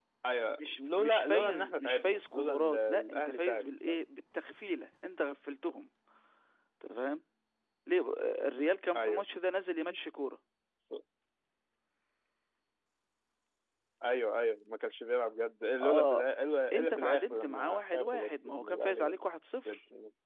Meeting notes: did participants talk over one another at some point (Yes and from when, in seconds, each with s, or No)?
Yes, from 0.6 s